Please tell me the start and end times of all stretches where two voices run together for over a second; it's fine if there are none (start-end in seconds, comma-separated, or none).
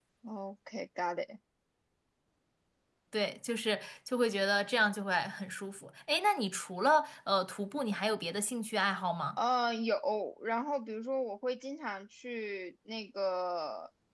none